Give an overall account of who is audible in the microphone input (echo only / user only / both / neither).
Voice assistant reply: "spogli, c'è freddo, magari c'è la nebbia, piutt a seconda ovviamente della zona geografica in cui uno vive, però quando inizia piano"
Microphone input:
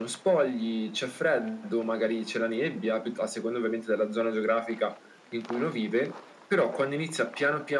echo only